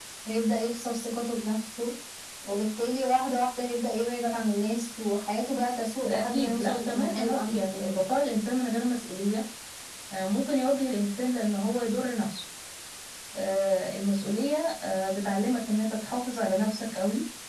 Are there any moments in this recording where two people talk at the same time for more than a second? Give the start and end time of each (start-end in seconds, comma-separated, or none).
6.0-7.9